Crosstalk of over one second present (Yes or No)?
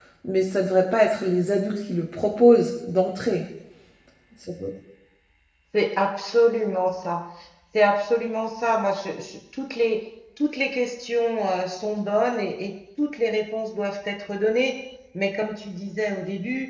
No